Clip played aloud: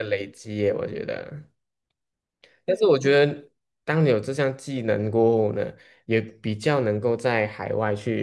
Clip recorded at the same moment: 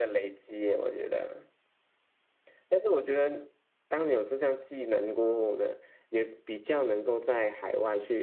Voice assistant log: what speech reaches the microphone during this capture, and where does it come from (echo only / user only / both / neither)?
echo only